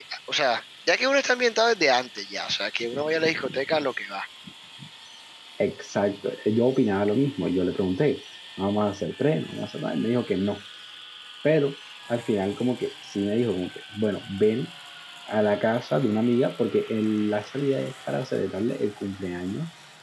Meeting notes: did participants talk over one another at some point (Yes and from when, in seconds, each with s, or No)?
No